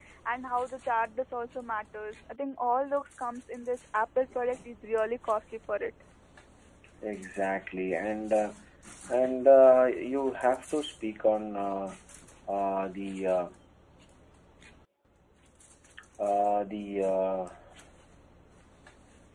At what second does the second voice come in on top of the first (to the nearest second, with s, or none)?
none